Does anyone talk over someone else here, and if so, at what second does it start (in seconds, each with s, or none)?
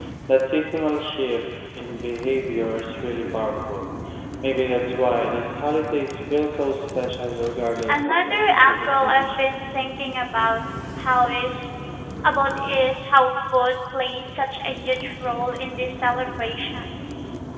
7.9 s